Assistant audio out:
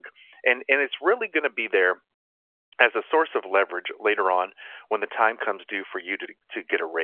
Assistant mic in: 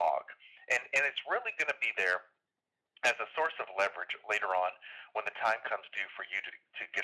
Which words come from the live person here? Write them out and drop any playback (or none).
none